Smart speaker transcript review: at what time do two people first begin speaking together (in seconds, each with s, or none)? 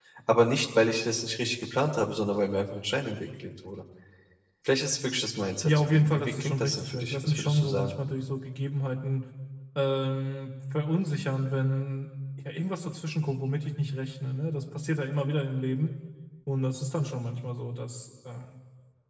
5.6 s